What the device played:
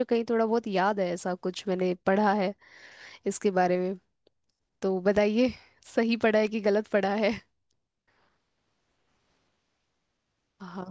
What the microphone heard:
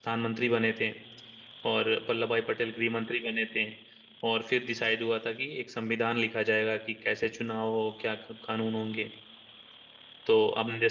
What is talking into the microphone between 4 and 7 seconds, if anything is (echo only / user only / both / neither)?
user only